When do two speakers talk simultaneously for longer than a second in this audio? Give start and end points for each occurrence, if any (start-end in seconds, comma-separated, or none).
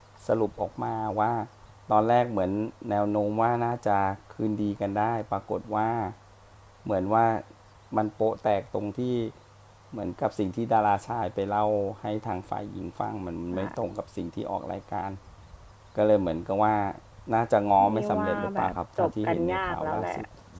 17.9-20.1